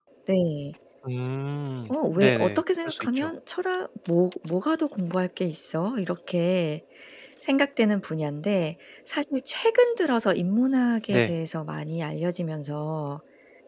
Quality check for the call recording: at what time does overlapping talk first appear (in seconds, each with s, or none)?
1.9 s